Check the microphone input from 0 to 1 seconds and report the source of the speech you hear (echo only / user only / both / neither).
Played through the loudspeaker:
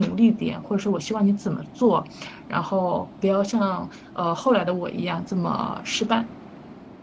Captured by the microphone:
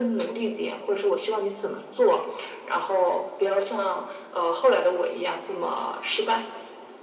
echo only